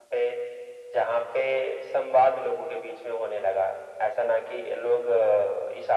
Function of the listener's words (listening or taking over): listening